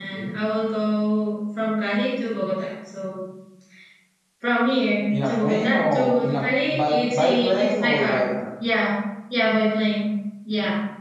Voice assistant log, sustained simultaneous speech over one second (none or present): present